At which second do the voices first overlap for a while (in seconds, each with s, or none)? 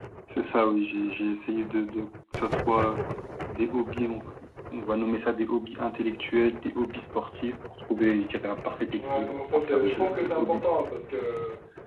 8.9 s